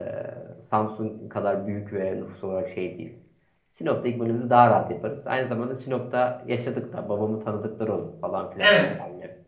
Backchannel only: No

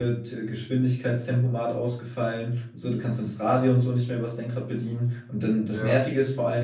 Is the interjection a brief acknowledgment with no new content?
Yes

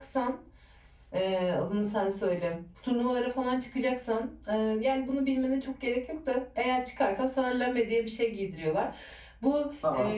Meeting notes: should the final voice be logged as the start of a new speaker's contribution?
No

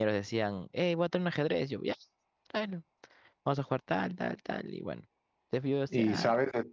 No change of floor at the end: No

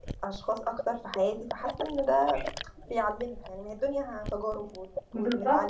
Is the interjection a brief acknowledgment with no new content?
No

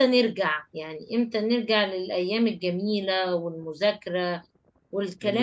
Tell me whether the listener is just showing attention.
No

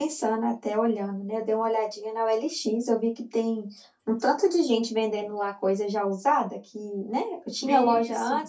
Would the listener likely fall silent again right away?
Yes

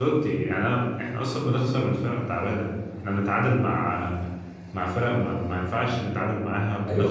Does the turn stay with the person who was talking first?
No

